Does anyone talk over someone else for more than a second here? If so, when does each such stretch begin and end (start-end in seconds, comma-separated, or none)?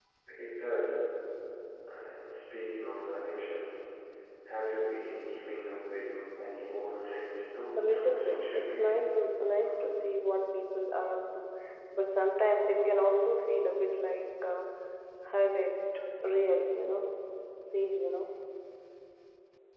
7.8-9.0